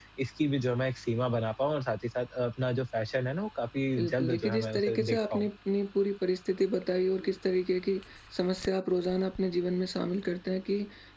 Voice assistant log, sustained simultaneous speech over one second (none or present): present